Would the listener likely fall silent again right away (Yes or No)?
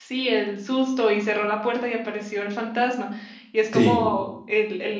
Yes